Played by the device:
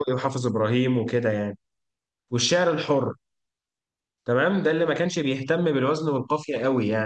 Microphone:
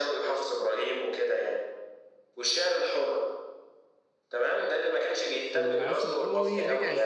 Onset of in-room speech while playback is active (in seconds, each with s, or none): 5.4 s